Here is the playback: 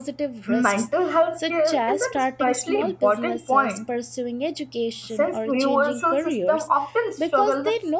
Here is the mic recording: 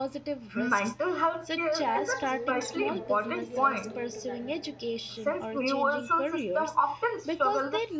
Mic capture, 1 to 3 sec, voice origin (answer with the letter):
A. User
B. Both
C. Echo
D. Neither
B